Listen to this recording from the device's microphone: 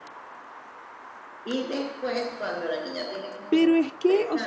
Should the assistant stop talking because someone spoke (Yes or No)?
Yes